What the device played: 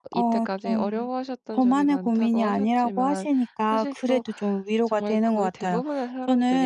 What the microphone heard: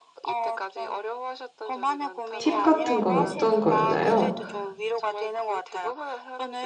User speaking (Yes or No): Yes